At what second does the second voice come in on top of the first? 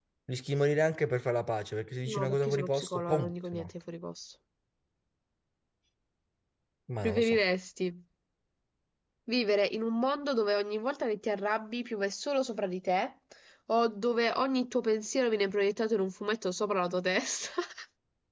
2 s

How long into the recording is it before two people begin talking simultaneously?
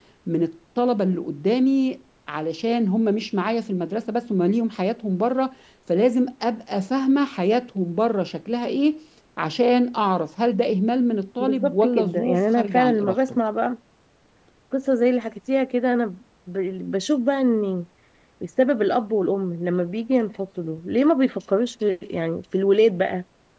11 s

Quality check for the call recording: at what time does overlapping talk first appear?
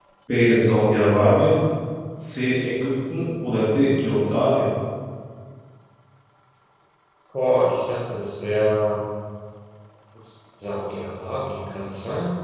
none

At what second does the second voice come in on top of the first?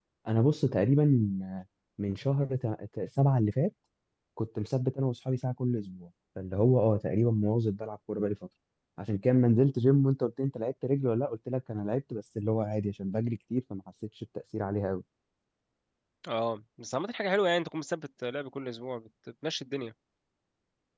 none

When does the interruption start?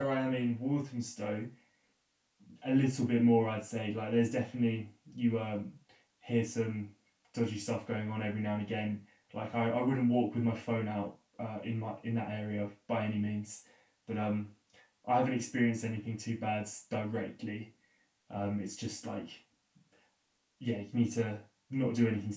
none

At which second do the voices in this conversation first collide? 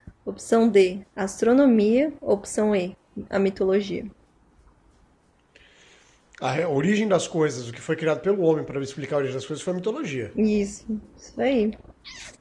none

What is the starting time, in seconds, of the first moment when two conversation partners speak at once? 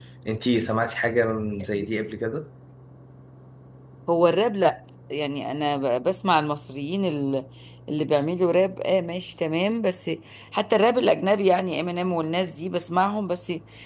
none

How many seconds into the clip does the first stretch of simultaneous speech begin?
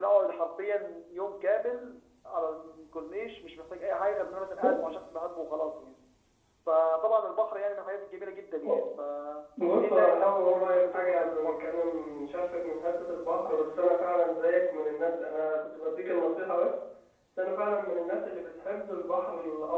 10 s

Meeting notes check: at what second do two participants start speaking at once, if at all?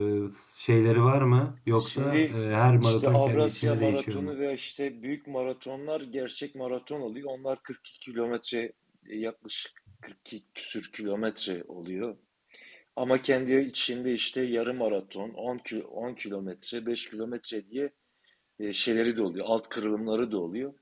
2 s

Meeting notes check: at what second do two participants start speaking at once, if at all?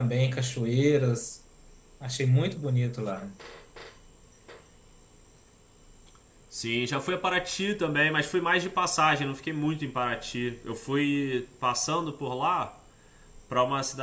none

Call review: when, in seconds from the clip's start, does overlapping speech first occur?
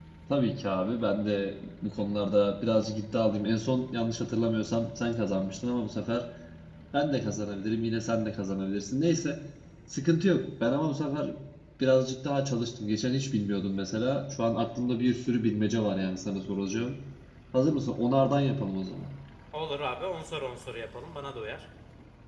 none

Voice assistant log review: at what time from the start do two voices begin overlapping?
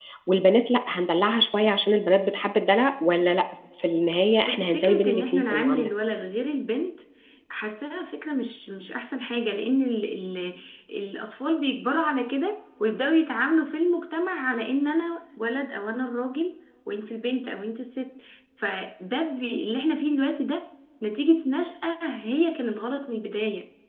4 s

